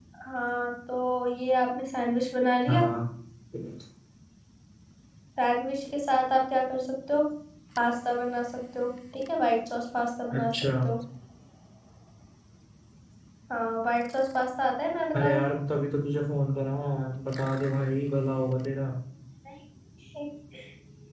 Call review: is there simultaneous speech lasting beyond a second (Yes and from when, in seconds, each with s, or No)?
No